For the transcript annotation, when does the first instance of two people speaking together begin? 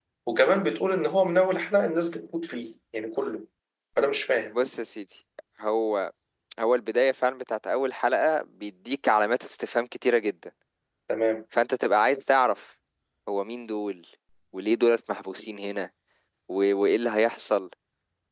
none

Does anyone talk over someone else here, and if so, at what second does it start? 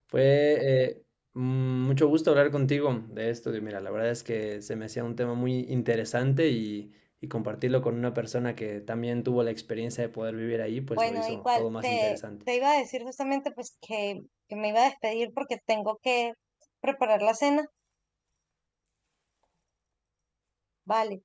11.0 s

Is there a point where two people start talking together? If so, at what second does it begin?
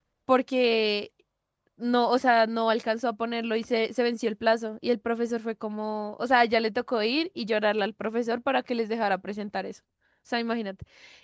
none

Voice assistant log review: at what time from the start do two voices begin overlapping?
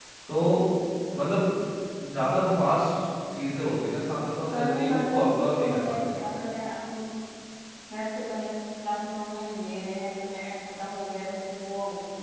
4.5 s

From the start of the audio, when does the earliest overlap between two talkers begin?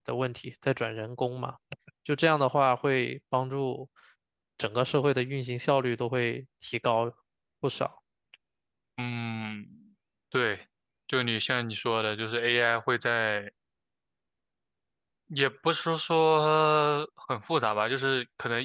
none

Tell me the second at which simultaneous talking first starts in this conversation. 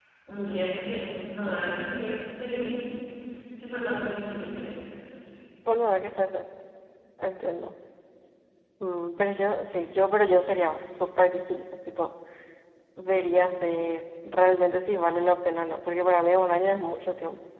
none

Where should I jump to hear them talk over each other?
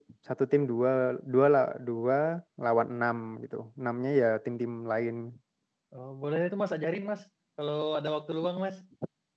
none

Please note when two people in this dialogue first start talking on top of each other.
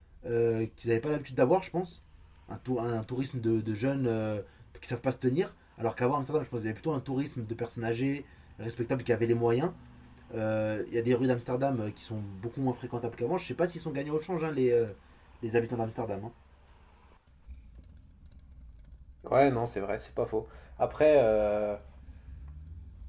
none

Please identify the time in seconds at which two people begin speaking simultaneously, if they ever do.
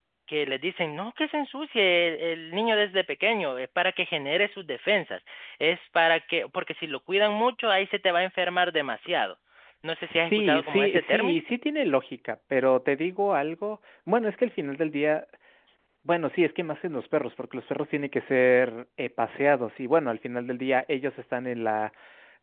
9.9 s

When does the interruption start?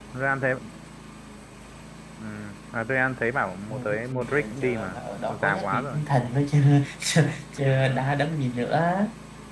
3.7 s

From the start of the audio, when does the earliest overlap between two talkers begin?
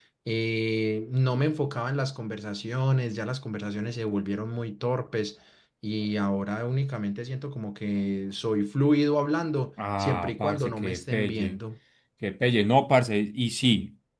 9.8 s

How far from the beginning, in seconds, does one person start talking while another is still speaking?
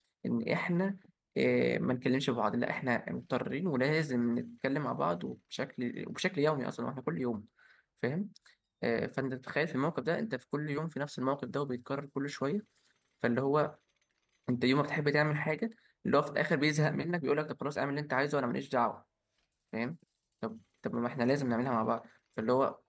none

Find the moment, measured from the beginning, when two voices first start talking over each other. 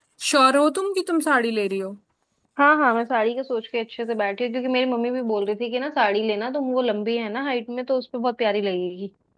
none

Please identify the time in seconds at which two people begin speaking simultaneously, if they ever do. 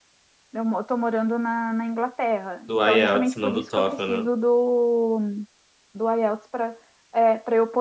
2.7 s

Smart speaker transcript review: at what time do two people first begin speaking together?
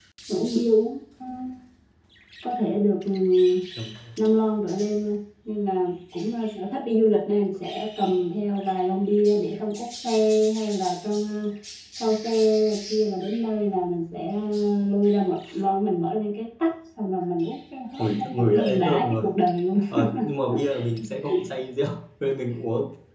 18.0 s

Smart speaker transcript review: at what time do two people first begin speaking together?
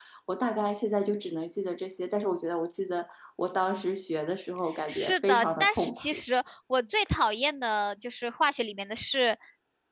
4.9 s

